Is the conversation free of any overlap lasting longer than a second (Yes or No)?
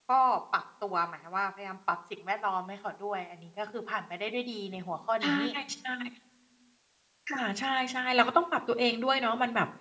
Yes